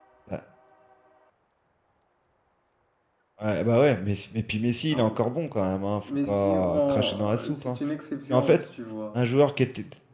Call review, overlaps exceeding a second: present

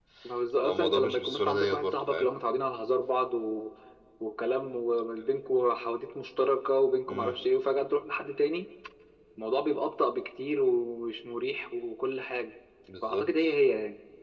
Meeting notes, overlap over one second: present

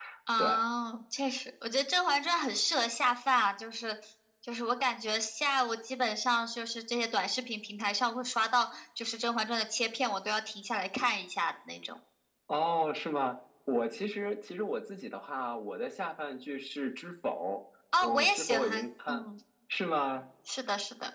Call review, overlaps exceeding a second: present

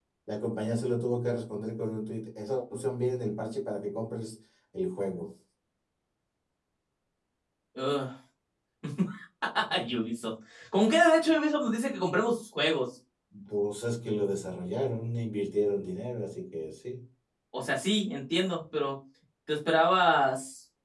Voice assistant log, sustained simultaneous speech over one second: none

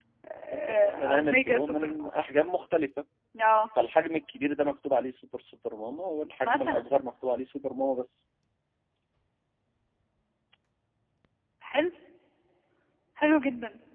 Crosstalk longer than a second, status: present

